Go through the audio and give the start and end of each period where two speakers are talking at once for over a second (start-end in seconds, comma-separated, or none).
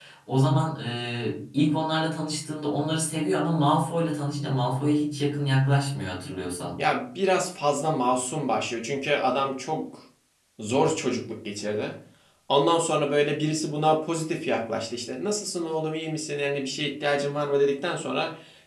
none